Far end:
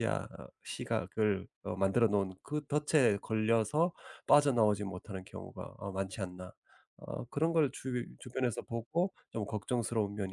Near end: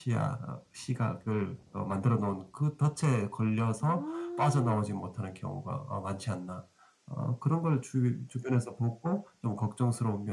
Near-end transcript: 아.

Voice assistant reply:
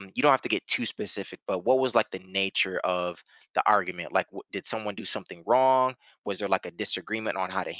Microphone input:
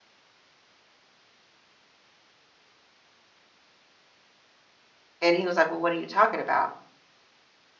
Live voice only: and he was like well what are you talking about

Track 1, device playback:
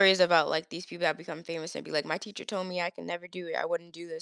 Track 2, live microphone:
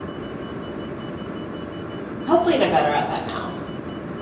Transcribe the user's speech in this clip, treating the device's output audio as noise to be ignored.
hopefully they're better at that now.

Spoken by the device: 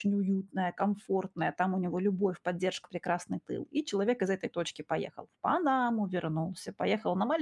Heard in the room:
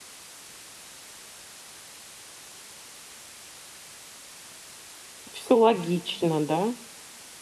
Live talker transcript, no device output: Все логично, да,

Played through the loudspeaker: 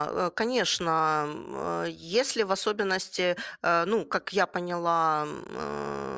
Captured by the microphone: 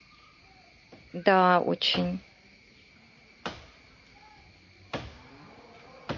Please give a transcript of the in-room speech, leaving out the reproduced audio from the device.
Да, очень.

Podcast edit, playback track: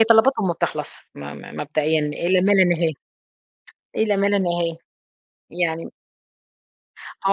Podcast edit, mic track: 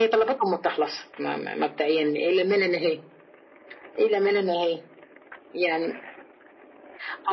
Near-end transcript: none

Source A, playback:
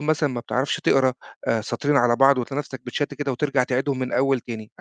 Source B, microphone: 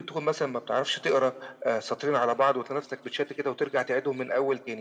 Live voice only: none

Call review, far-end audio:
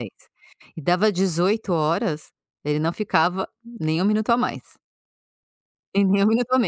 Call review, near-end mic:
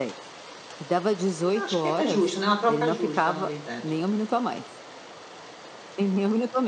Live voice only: hum, acho que é justo, né, uma troca justa, na verdade.

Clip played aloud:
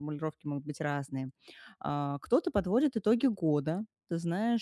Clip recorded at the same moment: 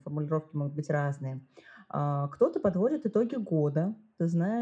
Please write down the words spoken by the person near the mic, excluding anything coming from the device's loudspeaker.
none

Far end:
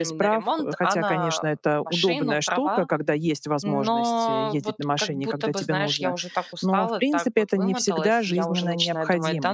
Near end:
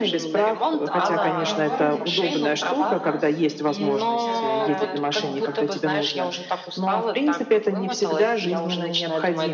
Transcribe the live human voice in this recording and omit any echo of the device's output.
А, в моем городе, где я живу, у нас есть, э, такая, ну, как, э,

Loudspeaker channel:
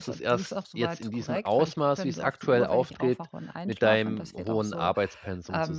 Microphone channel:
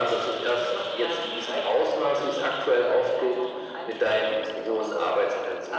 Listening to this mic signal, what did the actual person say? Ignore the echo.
none

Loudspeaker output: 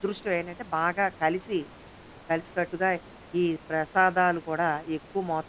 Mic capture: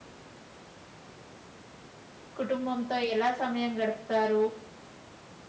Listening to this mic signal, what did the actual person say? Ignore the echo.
కుటుంబంతో ఎలా సమయం గడుపుతారు,

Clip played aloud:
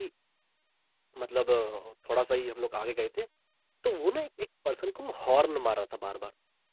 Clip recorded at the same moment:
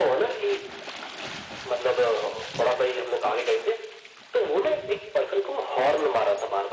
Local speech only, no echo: none

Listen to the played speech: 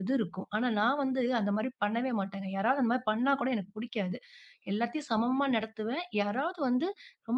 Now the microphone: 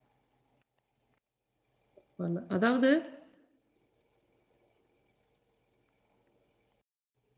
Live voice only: பரவால்ல. அதாவது

